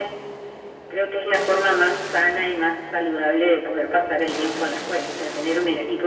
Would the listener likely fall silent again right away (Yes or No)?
Yes